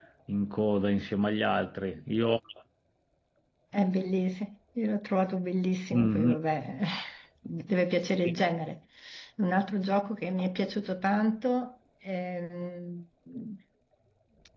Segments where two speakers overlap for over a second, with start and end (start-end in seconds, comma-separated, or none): none